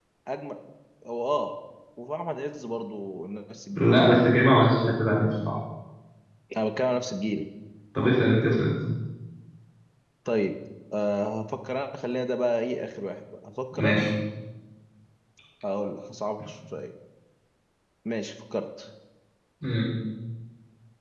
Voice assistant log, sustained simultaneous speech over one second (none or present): none